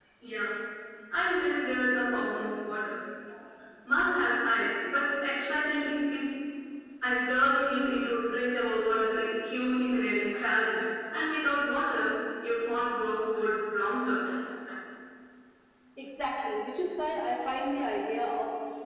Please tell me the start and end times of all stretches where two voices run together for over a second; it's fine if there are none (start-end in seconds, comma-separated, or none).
none